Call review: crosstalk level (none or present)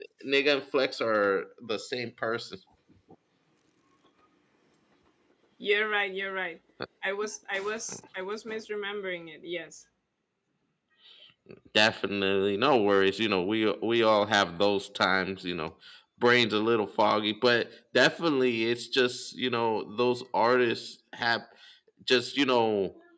none